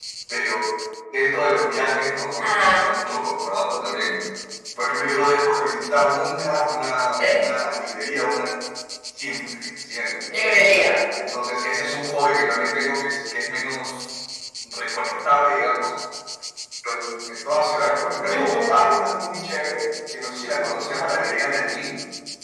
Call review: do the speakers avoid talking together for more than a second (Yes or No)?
Yes